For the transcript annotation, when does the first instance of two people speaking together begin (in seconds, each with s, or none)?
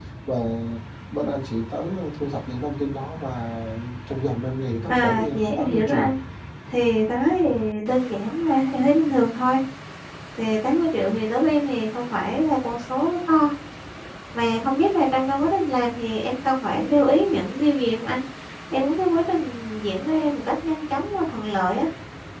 4.9 s